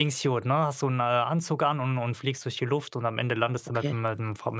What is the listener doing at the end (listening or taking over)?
listening